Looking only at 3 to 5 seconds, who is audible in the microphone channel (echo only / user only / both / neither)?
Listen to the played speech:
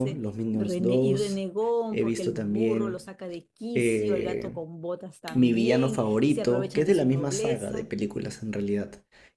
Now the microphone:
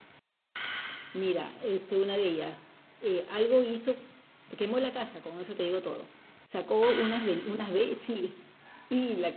user only